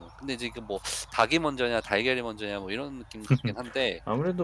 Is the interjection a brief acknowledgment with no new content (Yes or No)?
No